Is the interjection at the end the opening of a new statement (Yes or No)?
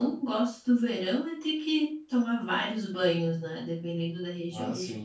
No